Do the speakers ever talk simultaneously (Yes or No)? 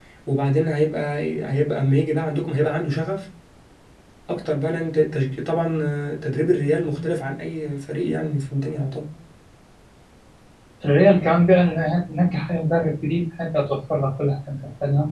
No